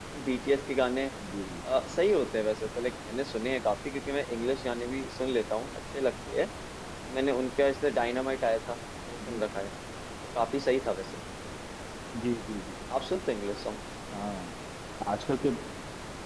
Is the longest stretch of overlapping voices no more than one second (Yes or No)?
Yes